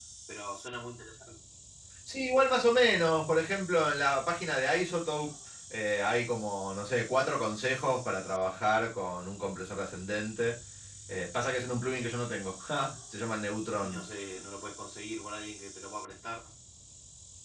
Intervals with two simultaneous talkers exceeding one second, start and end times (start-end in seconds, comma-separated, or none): none